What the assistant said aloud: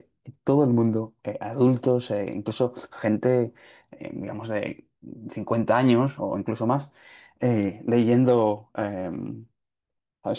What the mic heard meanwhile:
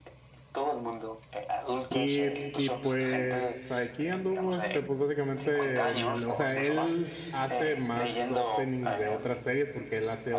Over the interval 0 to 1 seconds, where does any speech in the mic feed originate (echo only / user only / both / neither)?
echo only